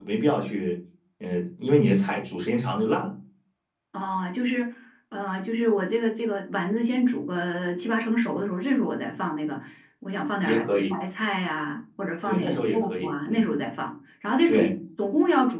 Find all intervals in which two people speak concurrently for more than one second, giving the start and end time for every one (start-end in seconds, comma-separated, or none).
12.3-13.5